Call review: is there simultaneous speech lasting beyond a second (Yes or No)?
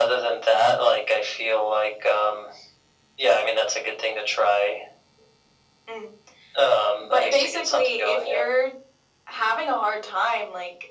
Yes